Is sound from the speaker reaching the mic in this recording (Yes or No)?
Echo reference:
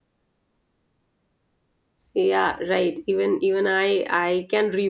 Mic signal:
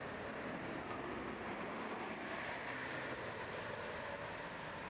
No